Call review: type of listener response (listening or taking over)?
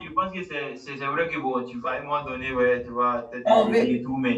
listening